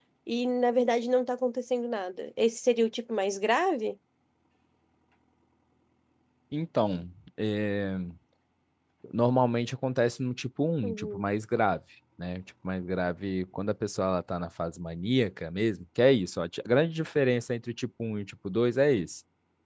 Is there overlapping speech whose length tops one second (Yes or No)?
No